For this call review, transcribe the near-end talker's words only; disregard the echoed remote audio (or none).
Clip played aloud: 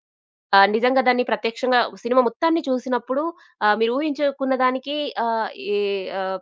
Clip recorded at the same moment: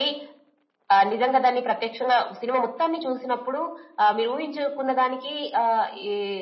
none